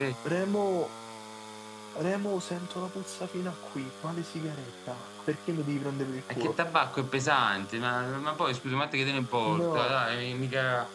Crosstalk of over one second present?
No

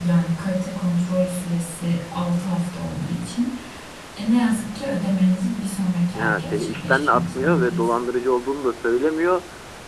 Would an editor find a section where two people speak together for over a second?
Yes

